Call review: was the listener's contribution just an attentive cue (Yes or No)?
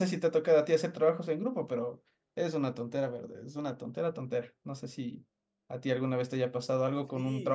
No